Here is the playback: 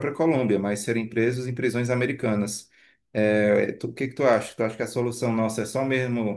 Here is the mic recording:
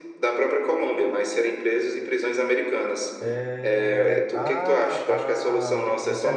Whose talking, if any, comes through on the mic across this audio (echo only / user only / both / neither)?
both